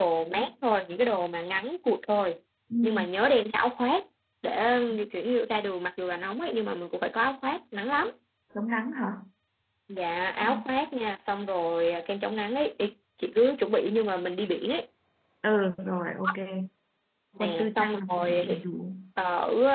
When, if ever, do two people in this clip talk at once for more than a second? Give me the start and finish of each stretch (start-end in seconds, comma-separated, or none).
17.4-18.6